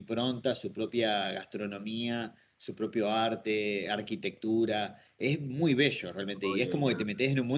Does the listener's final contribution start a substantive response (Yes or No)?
No